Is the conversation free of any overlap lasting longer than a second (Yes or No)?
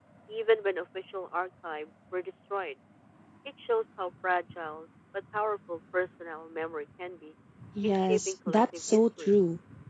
No